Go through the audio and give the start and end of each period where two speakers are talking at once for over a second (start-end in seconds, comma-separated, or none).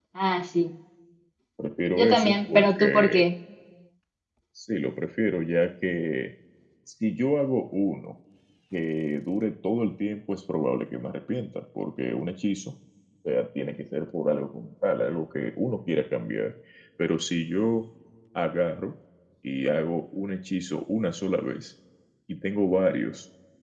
1.9-3.2